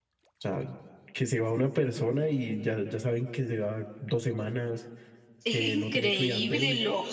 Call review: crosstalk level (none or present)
present